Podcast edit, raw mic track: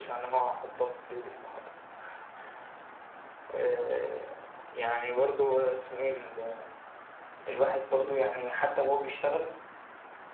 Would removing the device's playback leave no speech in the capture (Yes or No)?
Yes